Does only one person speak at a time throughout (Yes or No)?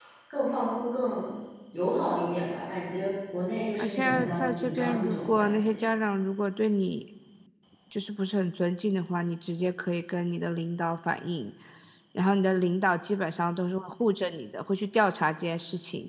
No